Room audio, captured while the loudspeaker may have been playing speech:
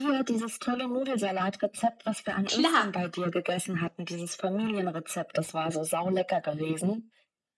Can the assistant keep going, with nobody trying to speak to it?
No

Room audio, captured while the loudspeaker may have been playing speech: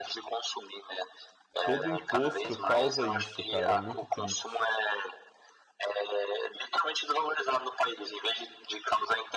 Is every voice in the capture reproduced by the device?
No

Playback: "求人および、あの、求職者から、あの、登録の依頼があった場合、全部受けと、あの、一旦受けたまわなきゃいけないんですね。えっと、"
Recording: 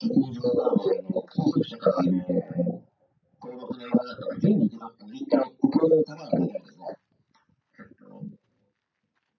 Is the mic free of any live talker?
Yes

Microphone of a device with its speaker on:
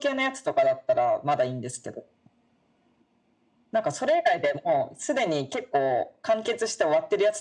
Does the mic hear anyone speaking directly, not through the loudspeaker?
No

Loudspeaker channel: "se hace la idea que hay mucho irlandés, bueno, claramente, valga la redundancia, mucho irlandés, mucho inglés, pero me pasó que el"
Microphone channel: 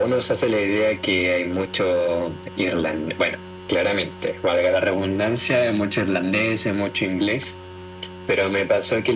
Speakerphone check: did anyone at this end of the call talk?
No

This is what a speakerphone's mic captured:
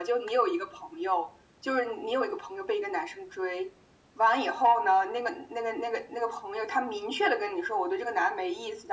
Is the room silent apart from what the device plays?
Yes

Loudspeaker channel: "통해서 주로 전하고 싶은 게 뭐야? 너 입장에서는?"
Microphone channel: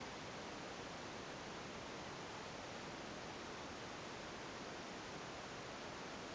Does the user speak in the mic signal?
No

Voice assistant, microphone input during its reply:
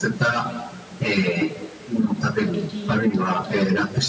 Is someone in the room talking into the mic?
Yes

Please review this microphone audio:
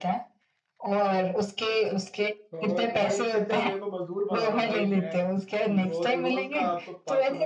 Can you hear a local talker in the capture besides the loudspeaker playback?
Yes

